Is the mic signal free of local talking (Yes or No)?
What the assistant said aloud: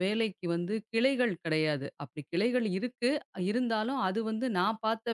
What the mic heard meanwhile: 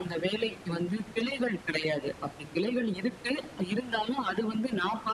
Yes